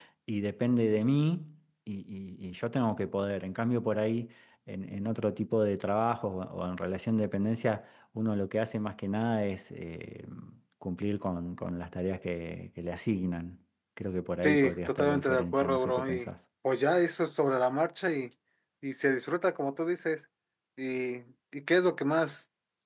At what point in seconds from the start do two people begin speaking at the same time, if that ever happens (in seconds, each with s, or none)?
14.4 s